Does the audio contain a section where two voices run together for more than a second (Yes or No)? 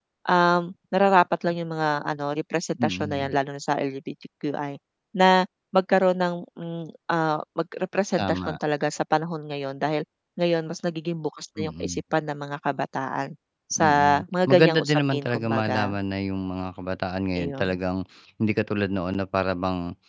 Yes